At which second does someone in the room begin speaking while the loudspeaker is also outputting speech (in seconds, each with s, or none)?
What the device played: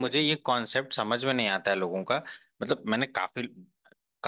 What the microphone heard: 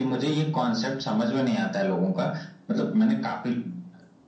none